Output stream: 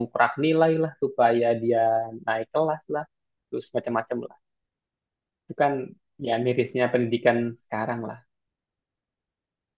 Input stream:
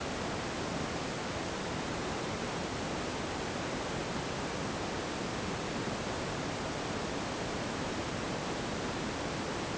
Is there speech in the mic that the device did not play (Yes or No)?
No